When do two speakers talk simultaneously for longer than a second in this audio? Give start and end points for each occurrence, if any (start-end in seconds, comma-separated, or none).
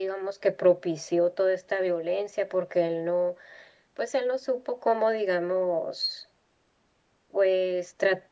none